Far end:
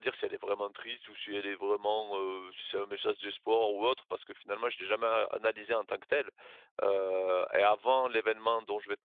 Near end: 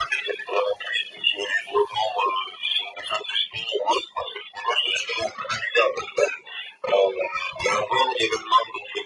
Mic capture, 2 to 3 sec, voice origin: echo only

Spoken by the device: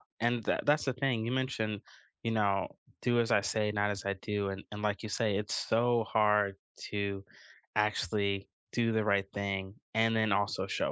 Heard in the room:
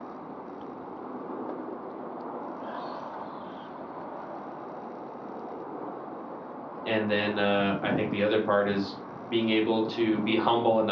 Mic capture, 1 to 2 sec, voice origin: neither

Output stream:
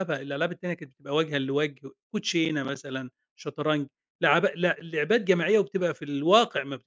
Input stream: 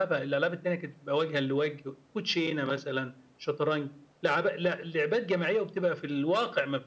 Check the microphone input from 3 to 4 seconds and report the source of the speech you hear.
echo only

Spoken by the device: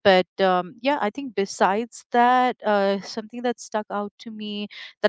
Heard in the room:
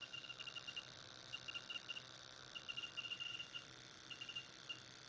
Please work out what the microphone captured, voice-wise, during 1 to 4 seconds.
neither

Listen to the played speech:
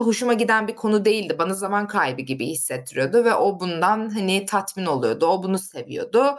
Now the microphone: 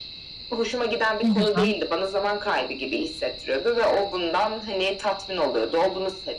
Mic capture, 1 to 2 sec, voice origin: both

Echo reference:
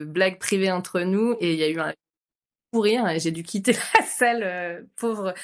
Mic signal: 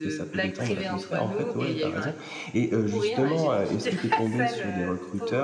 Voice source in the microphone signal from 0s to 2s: both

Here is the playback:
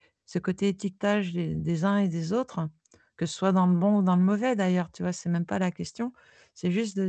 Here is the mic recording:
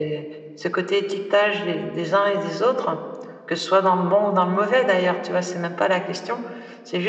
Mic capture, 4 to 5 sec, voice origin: echo only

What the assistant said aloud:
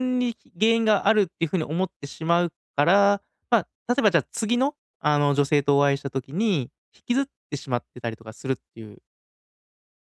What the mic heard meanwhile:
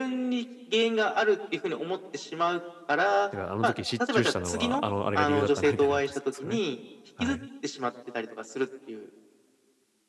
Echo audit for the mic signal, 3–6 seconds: both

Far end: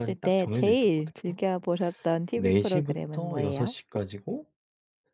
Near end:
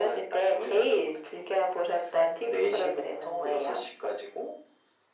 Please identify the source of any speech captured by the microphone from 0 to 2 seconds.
echo only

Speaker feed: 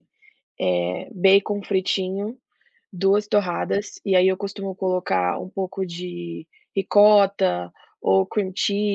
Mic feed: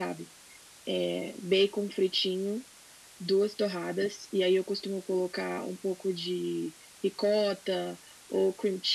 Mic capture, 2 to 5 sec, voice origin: echo only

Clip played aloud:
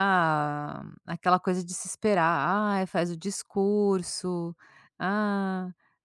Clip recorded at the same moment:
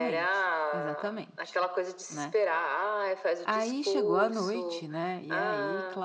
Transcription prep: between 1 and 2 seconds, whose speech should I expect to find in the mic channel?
both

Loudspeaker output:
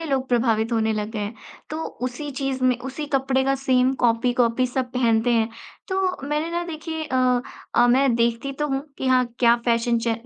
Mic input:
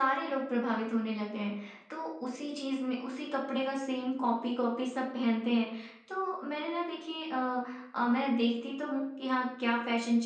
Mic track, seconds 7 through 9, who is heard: echo only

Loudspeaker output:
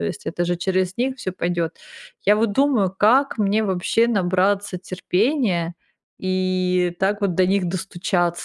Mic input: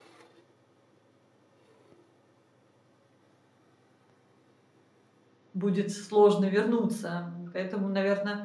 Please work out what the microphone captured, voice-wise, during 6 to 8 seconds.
user only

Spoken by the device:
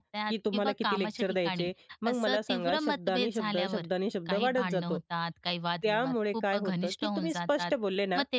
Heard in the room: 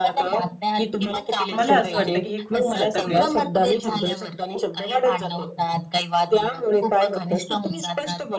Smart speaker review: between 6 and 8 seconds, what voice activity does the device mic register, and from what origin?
echo only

